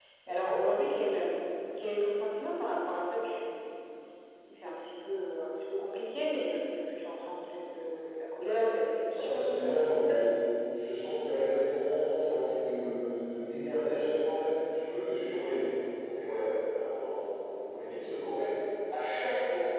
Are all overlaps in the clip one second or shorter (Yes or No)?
No